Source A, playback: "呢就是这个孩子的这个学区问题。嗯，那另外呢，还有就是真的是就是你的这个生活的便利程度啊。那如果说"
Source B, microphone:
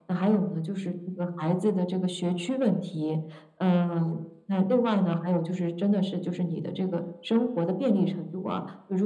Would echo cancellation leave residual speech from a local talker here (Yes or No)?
No